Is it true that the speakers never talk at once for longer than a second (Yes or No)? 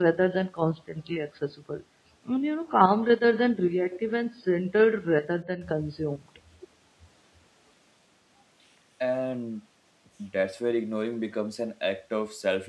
Yes